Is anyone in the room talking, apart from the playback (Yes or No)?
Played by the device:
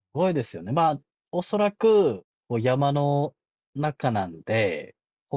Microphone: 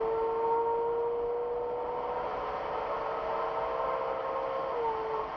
No